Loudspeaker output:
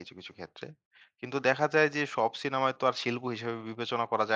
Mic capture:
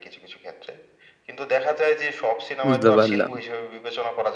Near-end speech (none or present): present